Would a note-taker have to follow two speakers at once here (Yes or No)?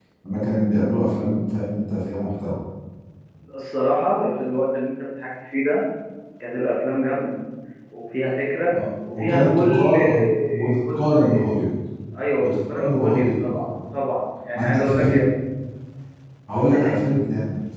Yes